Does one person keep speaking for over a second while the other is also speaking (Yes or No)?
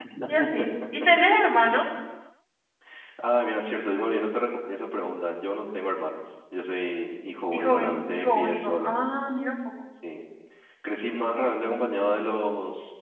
Yes